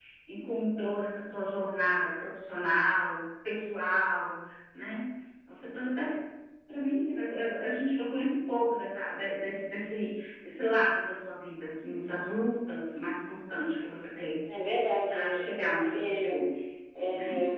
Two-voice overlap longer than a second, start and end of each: 15.1-16.4

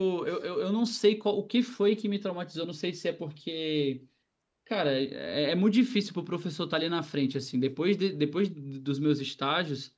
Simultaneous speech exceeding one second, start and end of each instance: none

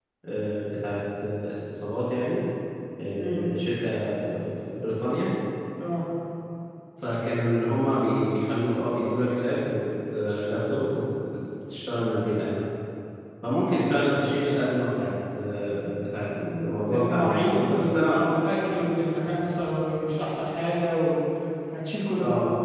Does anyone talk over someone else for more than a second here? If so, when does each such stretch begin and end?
16.4-18.2

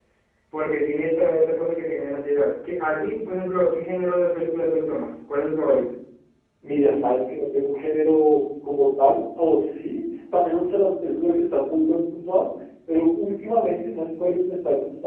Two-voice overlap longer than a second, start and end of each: none

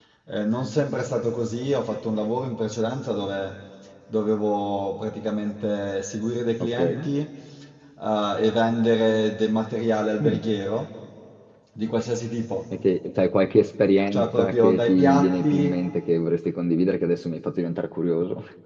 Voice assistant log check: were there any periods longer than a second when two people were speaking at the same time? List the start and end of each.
14.1-15.7

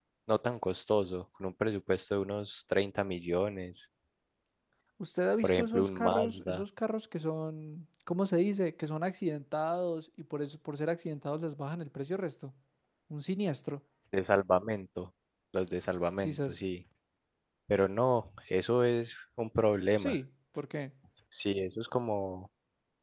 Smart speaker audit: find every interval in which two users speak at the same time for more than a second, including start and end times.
5.4-6.6

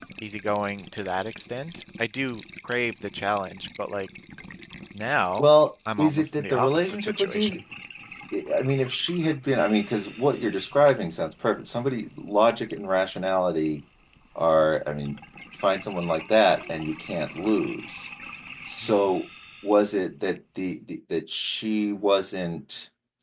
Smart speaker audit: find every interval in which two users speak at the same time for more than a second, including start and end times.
6.0-7.6

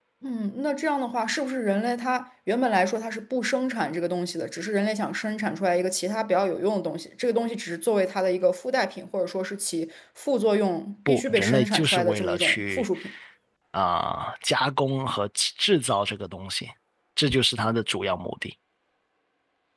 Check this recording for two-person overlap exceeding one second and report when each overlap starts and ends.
11.1-12.9

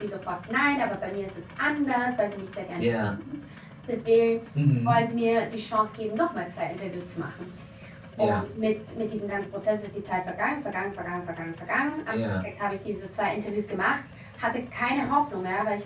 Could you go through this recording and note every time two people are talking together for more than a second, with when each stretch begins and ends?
none

